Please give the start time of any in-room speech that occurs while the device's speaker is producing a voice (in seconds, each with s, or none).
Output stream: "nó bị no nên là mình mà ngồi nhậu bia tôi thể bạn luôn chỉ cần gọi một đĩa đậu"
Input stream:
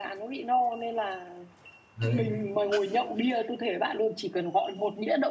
2.0 s